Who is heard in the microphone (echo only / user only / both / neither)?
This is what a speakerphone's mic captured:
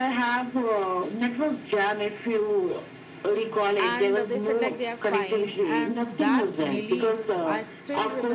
both